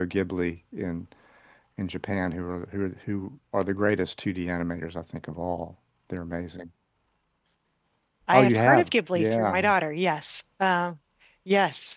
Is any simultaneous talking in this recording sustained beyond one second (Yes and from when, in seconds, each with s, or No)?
Yes, from 8.3 s